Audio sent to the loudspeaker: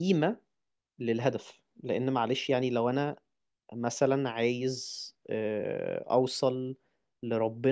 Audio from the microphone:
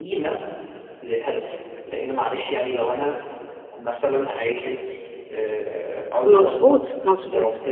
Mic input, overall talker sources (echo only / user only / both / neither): both